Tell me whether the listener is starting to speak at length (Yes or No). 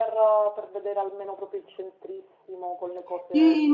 Yes